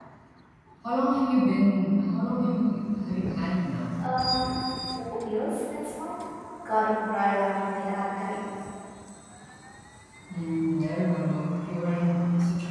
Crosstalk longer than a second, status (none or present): none